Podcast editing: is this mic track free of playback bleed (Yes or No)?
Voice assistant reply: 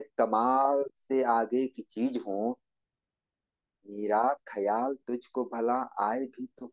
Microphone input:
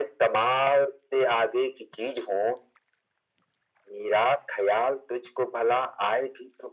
No